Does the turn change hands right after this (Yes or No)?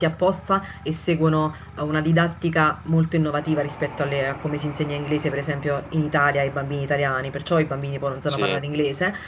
No